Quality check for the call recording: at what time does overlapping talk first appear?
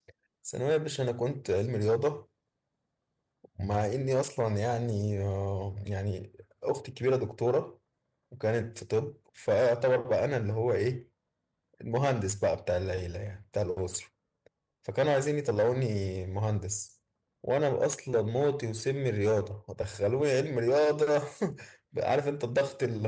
none

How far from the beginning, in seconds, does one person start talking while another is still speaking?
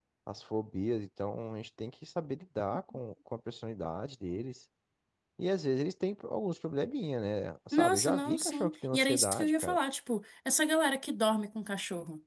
8 s

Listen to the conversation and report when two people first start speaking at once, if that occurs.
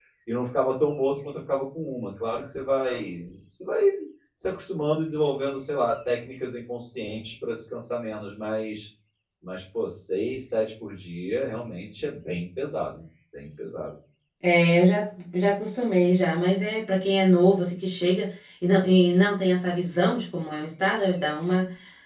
none

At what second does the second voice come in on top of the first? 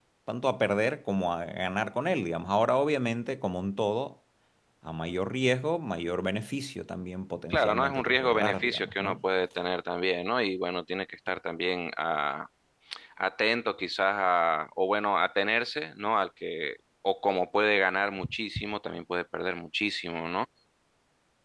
8 s

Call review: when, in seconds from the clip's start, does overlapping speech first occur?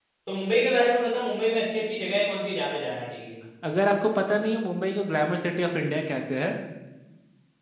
none

